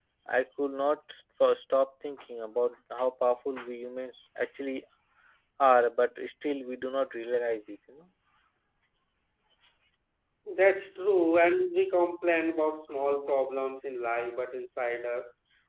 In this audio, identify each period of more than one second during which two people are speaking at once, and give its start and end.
none

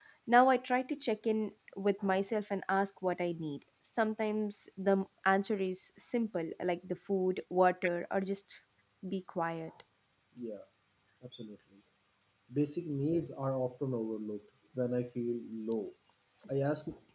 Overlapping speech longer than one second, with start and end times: none

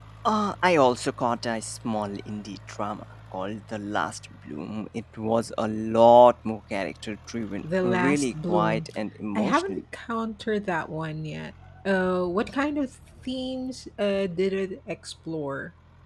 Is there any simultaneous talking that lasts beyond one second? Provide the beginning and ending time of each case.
7.6-8.9

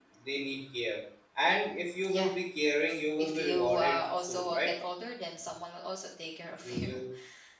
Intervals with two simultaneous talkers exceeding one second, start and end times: 3.2-4.7

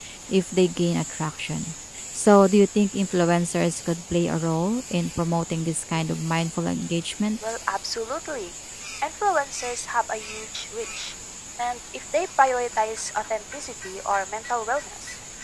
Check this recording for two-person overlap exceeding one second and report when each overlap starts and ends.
none

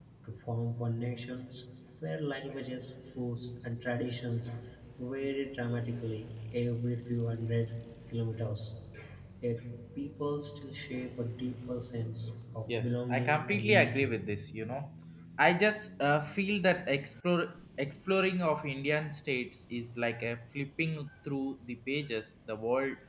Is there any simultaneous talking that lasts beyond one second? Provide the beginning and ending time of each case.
12.7-14.1

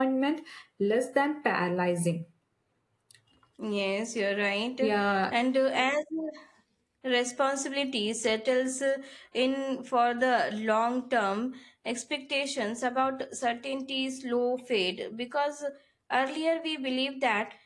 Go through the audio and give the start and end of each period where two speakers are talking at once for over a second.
none

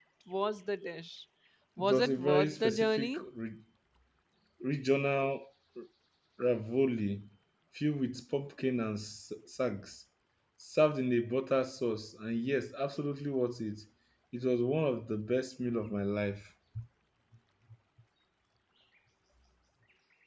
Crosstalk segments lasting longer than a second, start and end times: 1.8-3.2

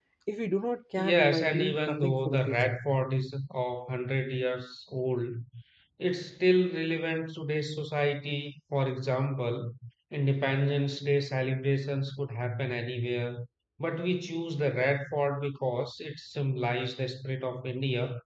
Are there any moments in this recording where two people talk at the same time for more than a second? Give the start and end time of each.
1.0-2.8

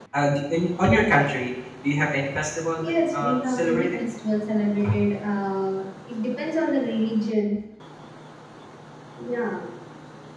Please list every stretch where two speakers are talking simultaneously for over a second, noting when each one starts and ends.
2.8-4.0

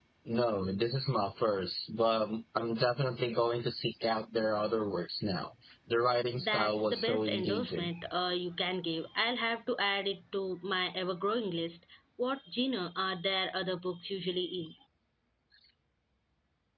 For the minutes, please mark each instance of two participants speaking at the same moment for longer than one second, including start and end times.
6.4-7.9

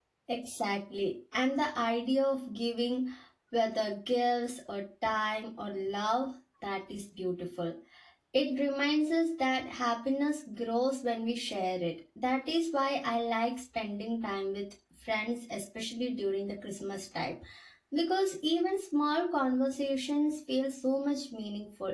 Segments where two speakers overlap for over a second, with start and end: none

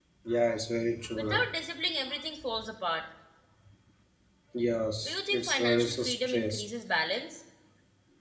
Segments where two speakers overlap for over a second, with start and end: 5.0-6.6

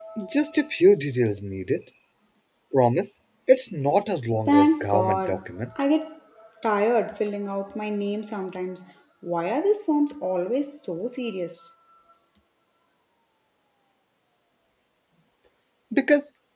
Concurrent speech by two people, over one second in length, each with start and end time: 4.5-5.7

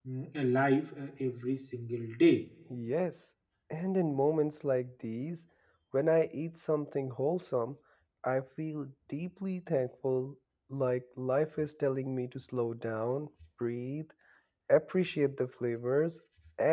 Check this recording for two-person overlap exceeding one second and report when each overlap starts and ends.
none

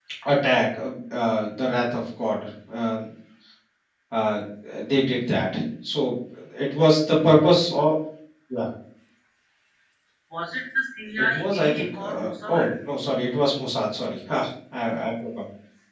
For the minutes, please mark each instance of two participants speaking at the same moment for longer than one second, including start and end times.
11.3-12.7

